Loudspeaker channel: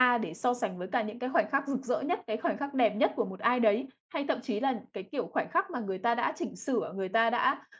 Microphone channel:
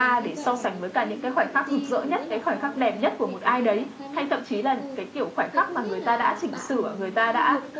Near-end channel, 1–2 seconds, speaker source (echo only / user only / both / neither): both